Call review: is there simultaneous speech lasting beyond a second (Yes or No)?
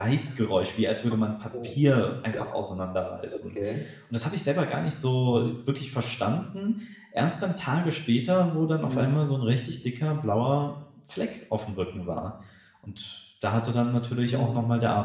No